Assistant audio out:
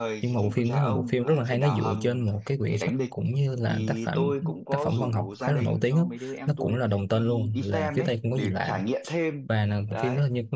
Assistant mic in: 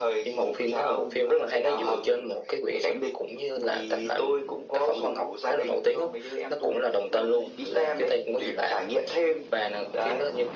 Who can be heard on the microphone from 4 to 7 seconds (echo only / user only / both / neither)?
echo only